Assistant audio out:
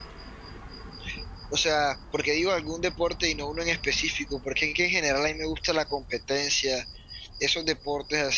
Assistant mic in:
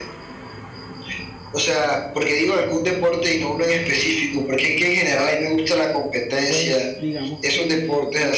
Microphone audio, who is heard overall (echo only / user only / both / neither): both